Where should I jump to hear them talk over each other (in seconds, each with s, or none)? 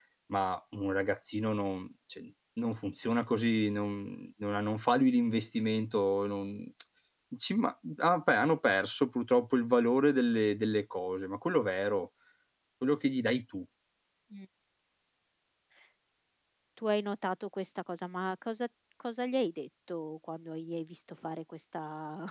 none